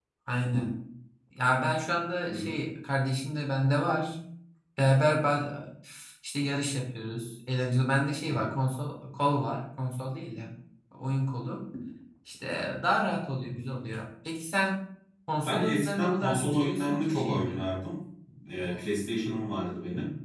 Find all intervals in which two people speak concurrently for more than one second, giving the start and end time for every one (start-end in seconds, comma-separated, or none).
15.5-17.6